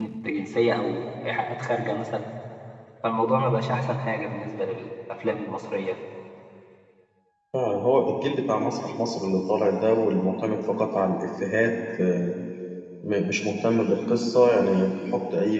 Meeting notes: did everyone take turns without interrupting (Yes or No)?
Yes